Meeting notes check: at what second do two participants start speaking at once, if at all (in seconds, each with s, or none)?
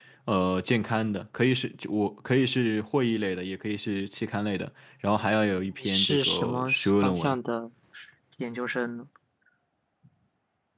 5.8 s